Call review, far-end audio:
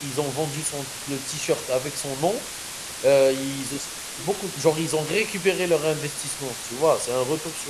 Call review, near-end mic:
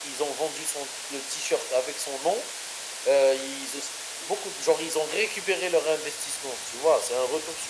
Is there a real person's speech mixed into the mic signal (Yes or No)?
No